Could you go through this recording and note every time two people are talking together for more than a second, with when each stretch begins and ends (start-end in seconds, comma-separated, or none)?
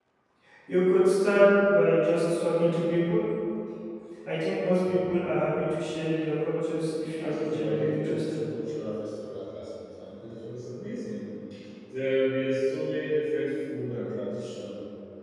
7.2-8.4